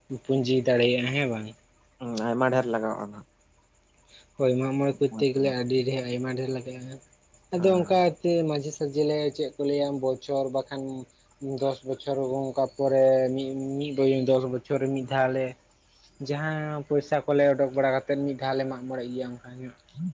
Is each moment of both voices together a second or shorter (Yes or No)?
Yes